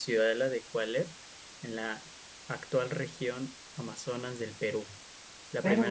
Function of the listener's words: listening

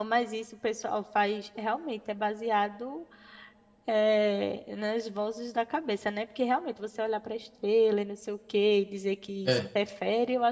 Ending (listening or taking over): listening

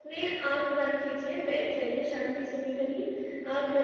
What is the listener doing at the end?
listening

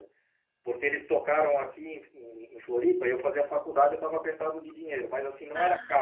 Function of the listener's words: listening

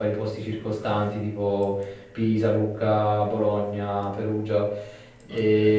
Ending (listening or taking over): listening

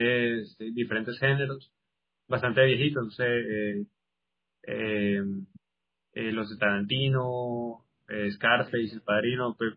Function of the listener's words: listening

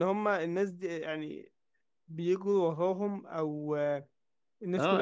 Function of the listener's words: taking over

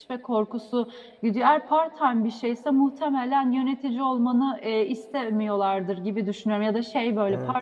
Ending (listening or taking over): listening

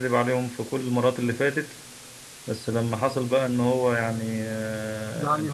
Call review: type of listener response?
listening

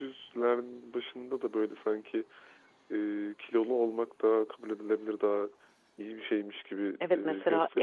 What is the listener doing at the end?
taking over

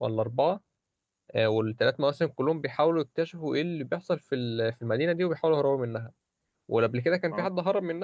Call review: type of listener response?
listening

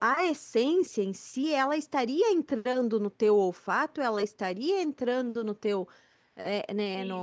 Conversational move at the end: taking over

